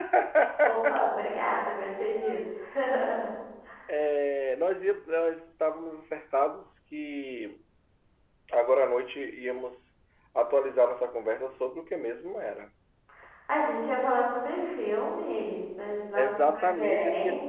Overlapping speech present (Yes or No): Yes